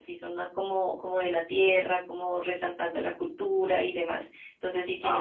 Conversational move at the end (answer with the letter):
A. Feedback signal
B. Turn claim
A